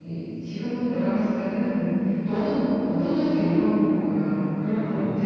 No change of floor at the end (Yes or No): Yes